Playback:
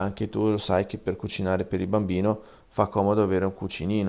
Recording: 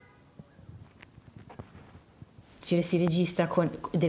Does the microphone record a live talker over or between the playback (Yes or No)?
Yes